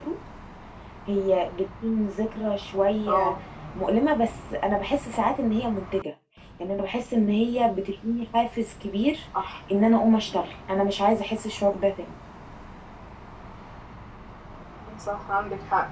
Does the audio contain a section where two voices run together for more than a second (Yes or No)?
No